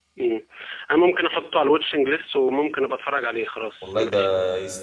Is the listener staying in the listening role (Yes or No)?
No